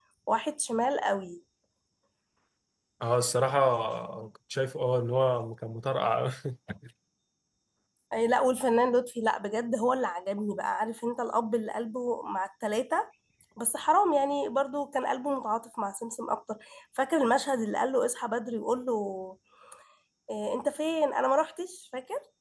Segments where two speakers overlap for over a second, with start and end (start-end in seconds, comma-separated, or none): none